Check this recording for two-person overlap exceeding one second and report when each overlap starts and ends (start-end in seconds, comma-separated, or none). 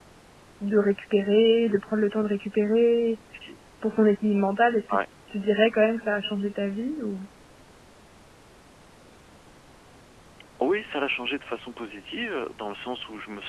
none